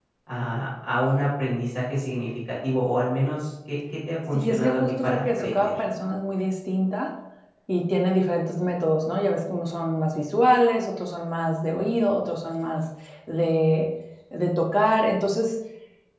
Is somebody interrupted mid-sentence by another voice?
Yes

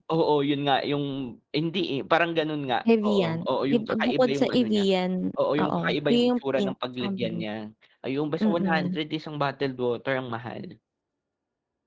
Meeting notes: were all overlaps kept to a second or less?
No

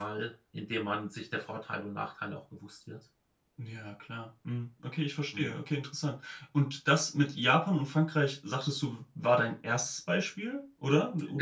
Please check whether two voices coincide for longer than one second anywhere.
No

